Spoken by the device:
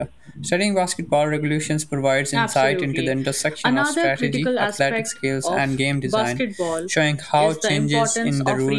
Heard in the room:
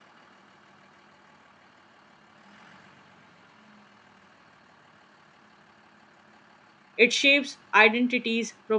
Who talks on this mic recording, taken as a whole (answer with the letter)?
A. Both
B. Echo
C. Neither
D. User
D